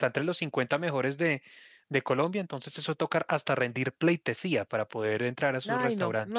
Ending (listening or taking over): taking over